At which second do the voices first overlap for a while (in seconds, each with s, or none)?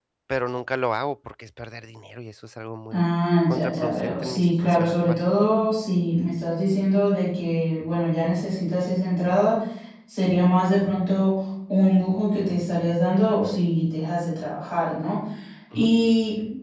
3.5 s